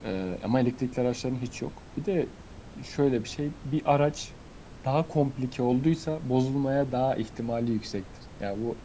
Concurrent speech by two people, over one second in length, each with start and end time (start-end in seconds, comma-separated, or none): none